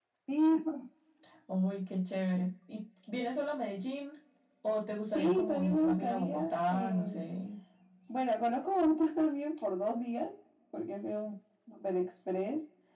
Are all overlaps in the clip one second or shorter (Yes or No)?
No